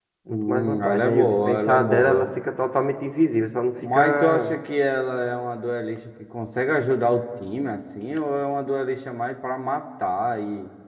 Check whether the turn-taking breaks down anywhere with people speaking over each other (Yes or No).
Yes